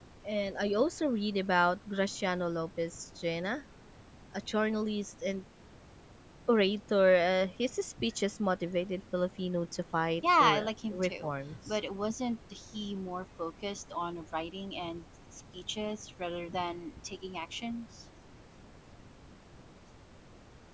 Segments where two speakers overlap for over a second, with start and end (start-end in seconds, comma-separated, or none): 10.4-11.8